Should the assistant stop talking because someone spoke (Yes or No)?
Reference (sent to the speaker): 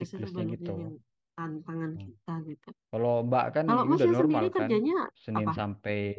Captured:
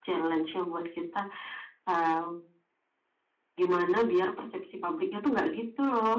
Yes